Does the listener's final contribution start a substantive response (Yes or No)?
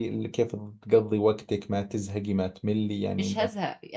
Yes